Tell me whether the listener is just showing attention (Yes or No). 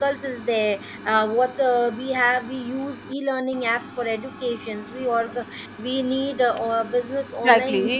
No